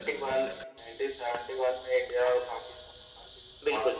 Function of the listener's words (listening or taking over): taking over